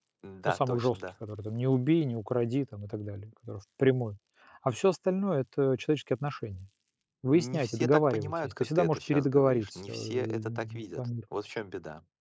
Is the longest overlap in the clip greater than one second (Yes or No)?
Yes